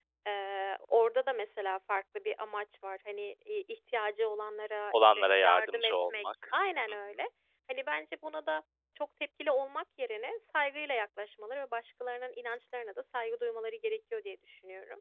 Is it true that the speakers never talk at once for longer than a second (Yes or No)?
No